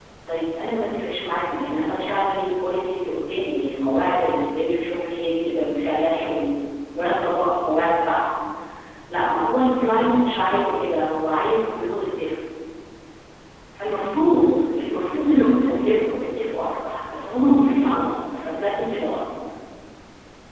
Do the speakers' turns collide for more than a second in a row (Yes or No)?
Yes